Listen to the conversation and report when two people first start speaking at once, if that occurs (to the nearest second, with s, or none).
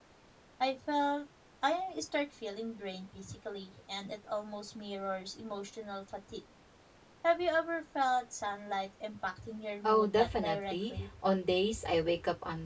10 s